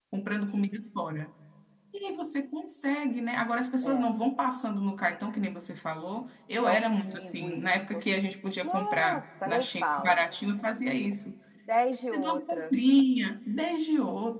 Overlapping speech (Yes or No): Yes